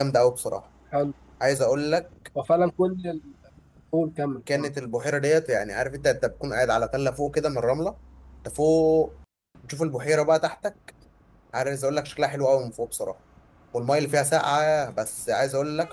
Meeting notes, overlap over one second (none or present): none